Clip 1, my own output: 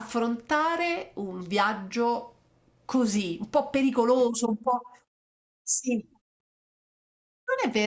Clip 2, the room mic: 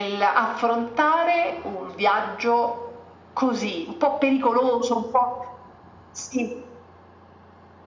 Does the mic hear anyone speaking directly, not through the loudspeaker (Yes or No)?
No